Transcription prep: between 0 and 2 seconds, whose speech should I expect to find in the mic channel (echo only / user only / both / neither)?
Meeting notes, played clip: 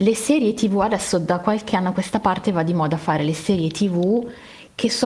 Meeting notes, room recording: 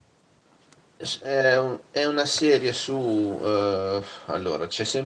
user only